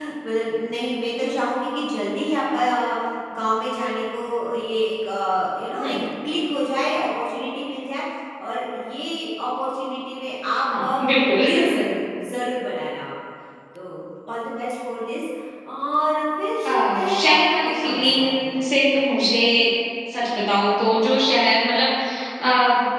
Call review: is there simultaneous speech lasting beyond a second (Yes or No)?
Yes